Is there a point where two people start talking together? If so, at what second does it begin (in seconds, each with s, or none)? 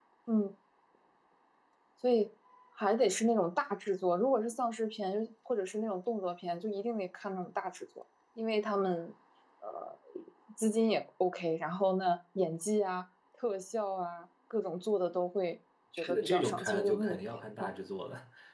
16.0 s